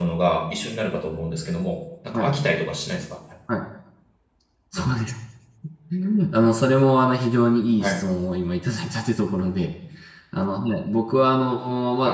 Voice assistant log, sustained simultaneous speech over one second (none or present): none